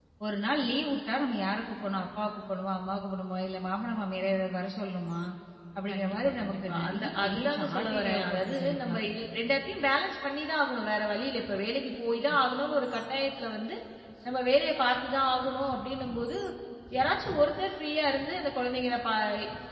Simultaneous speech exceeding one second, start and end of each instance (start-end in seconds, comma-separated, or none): 5.9-9.0